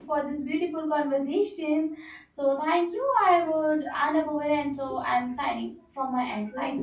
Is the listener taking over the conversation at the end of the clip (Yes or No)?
Yes